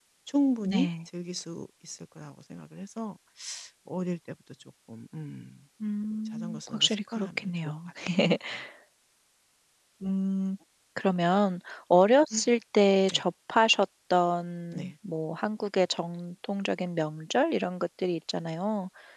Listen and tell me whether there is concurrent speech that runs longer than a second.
Yes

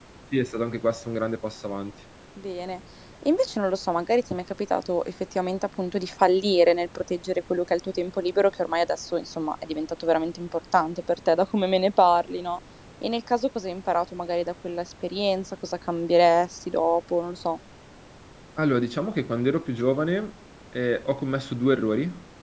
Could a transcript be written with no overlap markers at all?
Yes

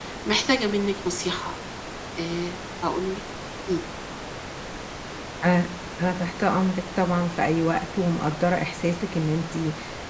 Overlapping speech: No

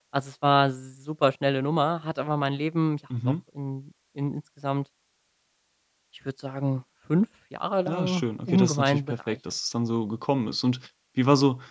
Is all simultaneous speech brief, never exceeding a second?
No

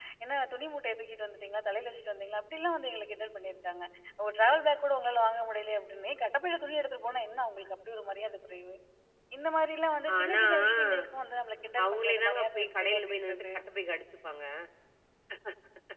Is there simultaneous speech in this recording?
Yes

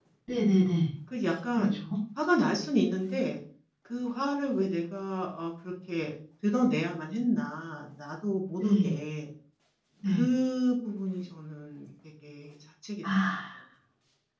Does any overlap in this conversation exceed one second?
No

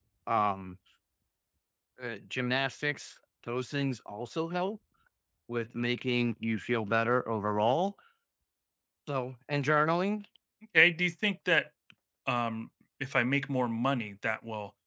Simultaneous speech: No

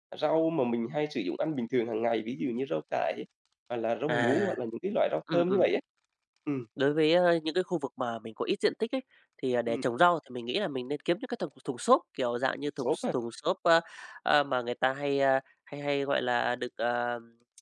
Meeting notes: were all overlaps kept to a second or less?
Yes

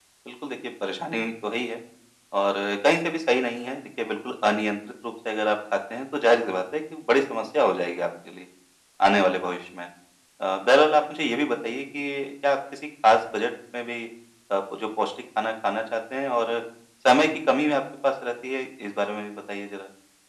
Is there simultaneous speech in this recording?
No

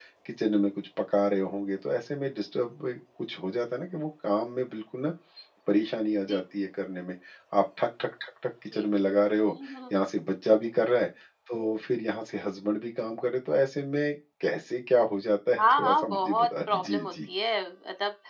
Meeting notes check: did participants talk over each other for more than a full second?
Yes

